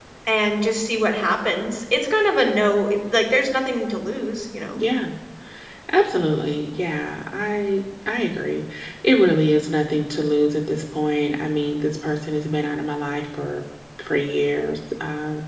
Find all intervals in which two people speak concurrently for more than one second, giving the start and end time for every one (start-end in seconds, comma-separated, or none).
none